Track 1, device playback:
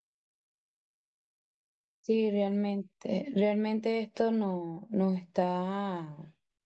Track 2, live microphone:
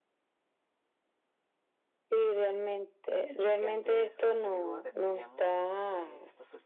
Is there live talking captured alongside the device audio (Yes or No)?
Yes